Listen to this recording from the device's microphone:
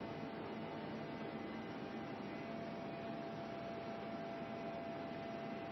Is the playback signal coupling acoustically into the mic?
No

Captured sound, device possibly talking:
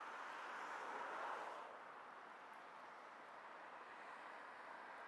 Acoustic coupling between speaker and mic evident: No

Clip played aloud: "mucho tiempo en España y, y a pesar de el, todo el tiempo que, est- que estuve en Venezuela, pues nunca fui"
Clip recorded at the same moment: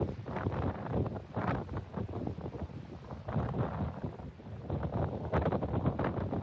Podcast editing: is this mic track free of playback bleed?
Yes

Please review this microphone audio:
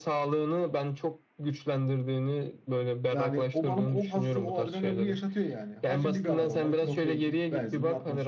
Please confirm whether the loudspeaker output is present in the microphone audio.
Yes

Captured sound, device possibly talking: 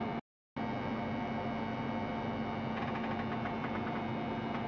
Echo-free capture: Yes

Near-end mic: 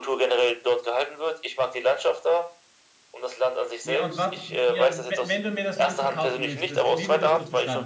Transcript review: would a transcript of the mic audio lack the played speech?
No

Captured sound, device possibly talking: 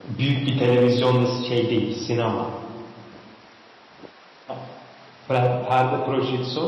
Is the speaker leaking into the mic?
No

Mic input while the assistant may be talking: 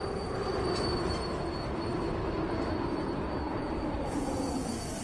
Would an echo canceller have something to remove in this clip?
No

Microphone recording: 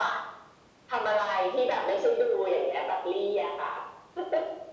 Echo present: Yes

